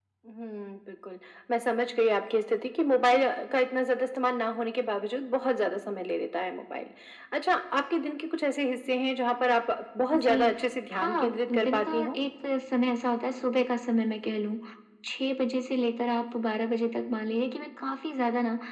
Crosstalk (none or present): present